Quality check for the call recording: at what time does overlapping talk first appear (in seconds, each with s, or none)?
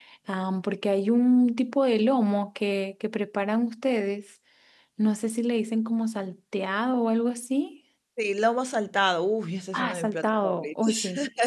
9.7 s